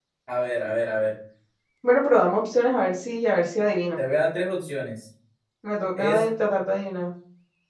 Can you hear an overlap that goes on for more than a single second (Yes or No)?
No